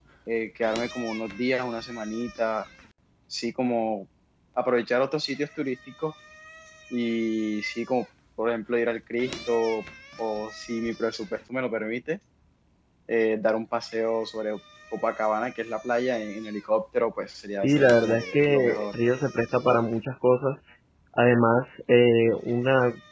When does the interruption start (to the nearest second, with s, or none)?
18 s